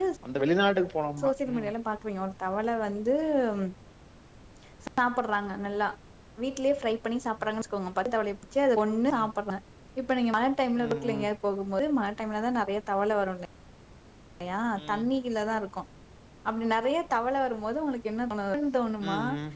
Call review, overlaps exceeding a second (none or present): none